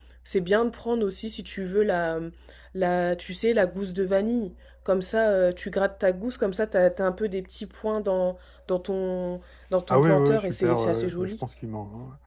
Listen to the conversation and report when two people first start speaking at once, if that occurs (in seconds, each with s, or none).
9.9 s